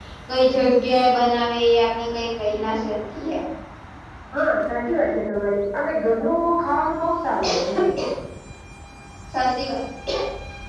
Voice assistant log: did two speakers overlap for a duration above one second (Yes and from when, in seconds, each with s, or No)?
No